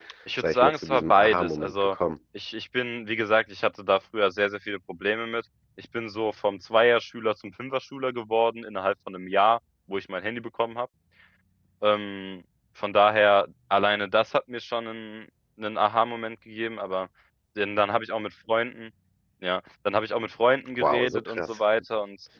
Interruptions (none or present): present